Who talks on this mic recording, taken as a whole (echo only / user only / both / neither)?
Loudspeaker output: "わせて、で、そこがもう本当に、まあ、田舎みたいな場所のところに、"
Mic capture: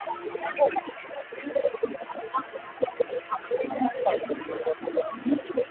echo only